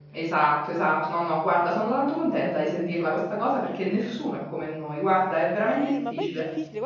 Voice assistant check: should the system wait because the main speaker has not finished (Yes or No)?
No